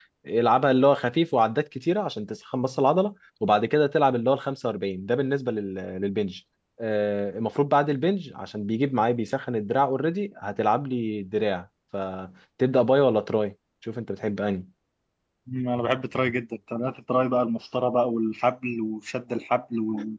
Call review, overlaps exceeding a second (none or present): none